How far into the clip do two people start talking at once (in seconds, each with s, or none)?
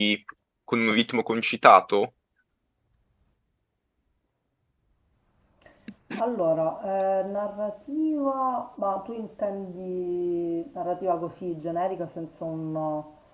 none